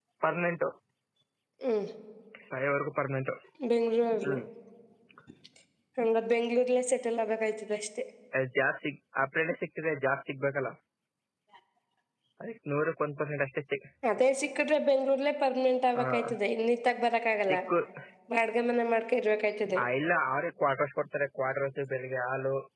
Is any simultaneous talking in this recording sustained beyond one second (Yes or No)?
No